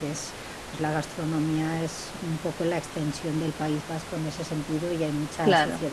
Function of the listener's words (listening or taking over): listening